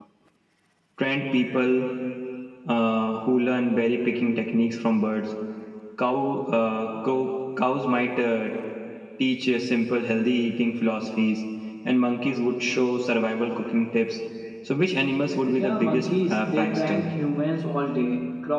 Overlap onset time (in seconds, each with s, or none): 15.6 s